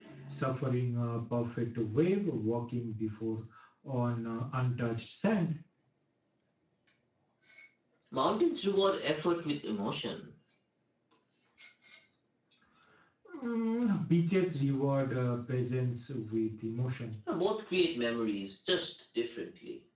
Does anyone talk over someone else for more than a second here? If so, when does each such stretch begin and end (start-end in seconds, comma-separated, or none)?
none